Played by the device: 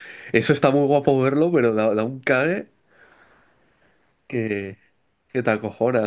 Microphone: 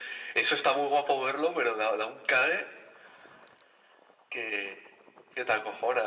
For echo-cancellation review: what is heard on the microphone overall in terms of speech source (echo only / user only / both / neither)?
echo only